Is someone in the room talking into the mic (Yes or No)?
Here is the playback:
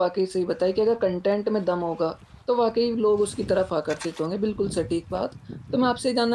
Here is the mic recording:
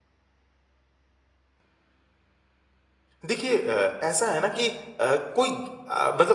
Yes